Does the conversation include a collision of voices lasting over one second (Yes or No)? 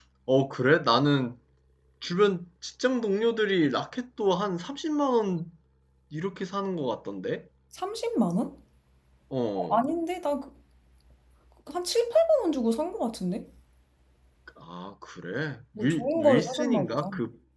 Yes